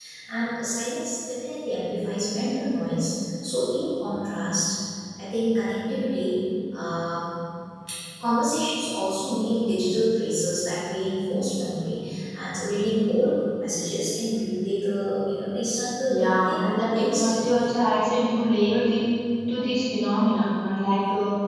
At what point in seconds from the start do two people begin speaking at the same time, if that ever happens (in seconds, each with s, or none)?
16.1 s